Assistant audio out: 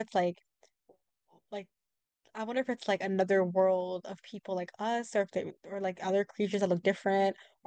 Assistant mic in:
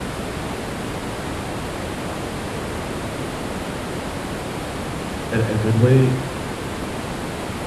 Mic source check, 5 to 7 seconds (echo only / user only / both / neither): user only